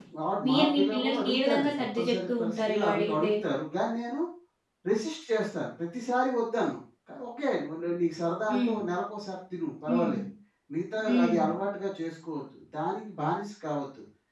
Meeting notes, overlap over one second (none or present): present